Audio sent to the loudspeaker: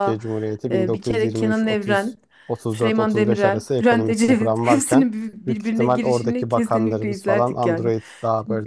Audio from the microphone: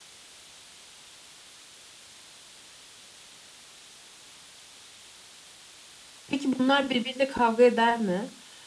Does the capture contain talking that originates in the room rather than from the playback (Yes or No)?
Yes